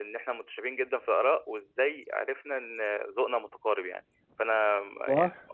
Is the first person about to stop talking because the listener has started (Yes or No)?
Yes